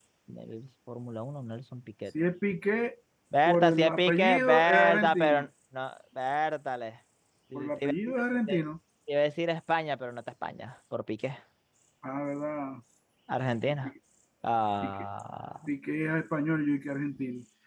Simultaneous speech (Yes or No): Yes